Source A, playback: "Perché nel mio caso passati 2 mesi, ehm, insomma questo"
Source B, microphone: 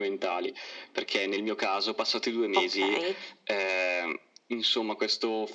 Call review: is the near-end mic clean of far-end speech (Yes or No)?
No